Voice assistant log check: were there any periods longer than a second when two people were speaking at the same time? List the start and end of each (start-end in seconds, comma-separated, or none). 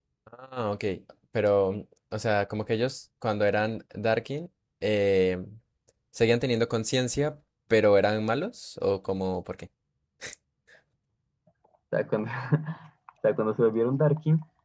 none